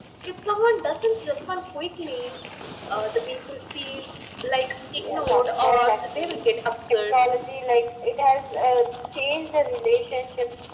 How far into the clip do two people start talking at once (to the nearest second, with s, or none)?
5 s